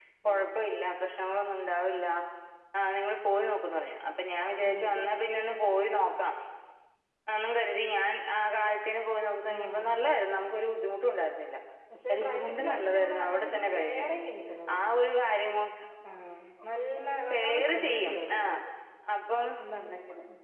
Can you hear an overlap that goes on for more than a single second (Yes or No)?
Yes